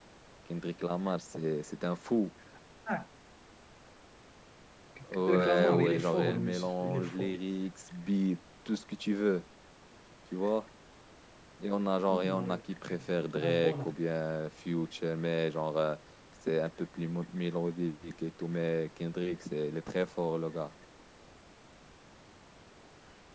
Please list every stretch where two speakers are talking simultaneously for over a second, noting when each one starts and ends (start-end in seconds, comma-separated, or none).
5.2-7.3